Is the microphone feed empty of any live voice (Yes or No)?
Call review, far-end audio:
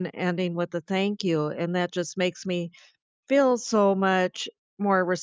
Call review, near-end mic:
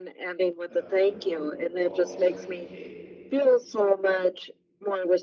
No